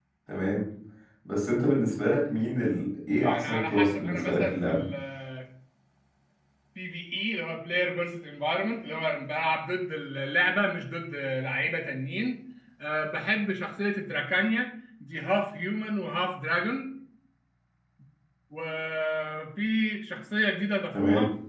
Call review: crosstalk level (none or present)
present